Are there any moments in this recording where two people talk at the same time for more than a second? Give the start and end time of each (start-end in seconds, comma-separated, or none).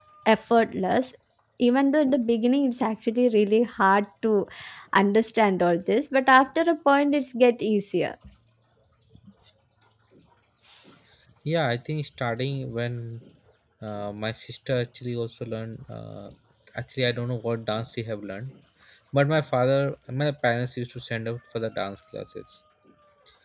none